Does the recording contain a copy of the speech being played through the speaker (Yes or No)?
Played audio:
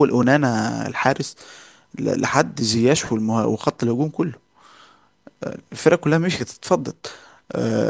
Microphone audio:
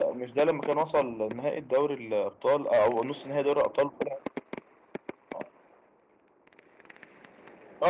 No